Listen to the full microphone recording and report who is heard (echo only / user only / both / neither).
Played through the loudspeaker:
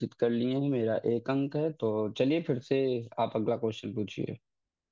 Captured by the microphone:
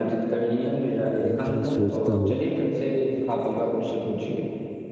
both